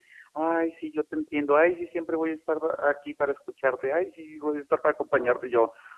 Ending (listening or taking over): listening